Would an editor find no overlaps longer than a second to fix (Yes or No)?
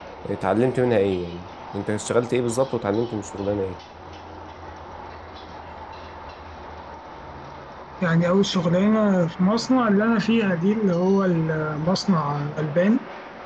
Yes